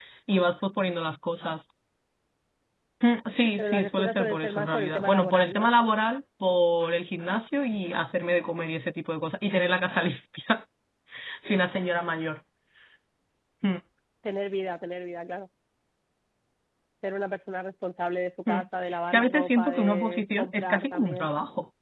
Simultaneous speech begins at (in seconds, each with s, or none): 3.6 s